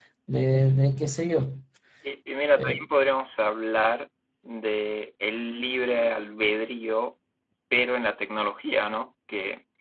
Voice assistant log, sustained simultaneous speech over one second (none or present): none